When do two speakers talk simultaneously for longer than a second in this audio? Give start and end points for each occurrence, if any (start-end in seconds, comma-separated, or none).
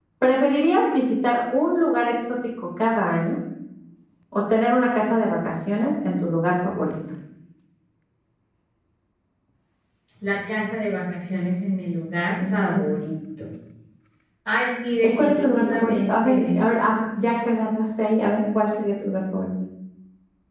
15.0-16.5